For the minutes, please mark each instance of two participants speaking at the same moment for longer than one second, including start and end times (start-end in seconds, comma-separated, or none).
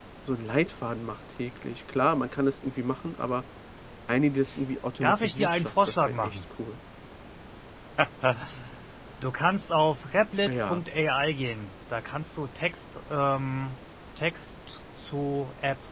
5.0-6.4